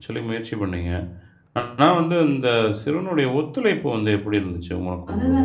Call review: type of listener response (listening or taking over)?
taking over